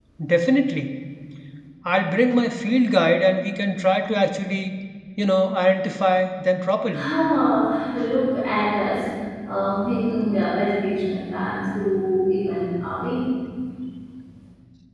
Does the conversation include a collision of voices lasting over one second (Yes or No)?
No